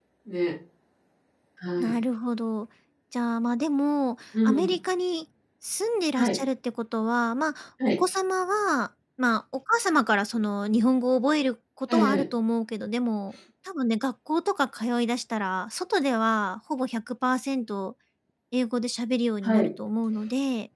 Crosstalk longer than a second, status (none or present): none